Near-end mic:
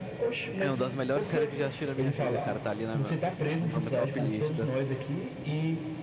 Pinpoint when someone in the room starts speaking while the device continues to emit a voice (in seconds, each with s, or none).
0.6 s